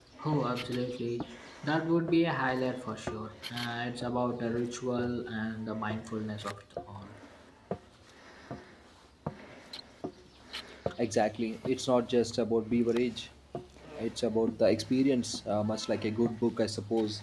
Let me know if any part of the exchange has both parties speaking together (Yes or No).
No